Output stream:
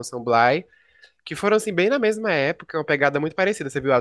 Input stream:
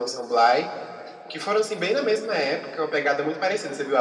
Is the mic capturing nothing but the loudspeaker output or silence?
Yes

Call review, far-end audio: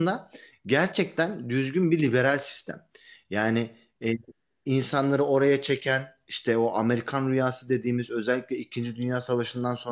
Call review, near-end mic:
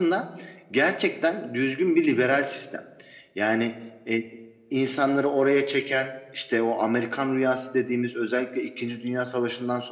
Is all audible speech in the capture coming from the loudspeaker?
Yes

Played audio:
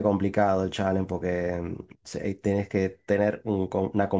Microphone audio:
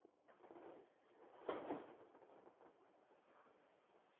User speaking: No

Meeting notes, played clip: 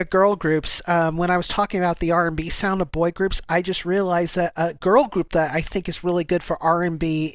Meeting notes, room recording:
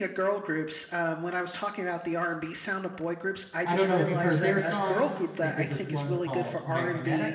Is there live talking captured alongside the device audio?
Yes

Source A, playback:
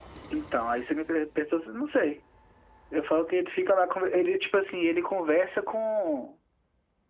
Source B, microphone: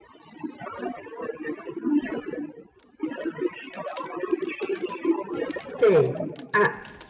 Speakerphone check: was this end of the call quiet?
No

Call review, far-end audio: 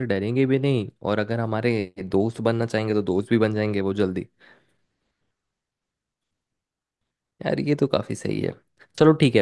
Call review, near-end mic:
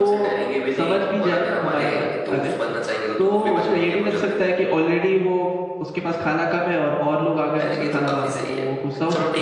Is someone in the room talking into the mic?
Yes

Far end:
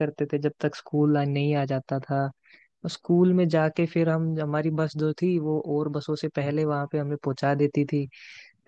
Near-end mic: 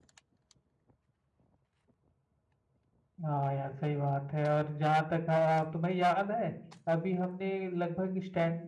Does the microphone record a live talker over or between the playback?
Yes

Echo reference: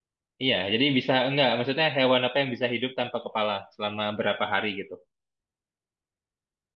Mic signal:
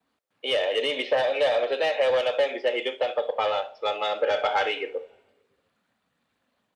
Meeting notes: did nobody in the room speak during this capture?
Yes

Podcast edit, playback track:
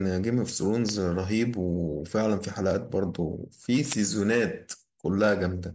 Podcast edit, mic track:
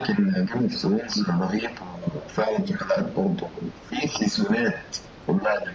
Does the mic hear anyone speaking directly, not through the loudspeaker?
No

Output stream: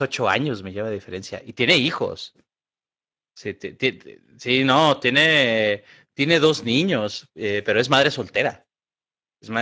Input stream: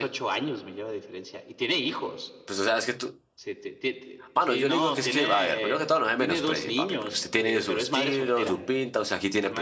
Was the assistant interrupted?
Yes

